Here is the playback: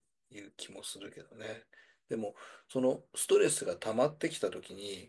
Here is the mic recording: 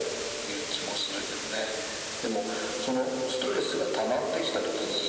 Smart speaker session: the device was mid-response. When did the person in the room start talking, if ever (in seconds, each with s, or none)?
none